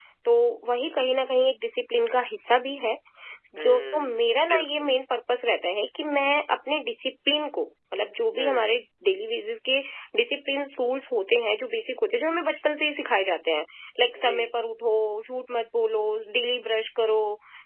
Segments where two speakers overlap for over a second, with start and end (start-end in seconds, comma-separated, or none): 3.6-4.9